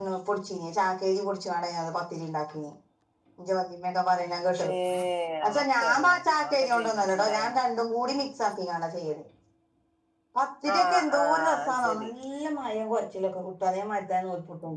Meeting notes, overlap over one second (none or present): present